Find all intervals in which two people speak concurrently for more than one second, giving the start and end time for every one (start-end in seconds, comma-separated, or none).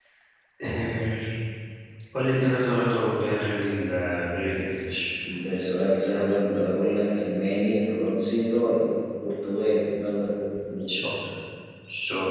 none